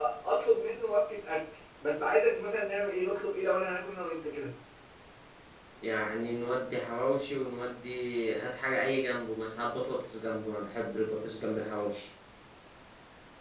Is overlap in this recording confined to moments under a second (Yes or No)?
Yes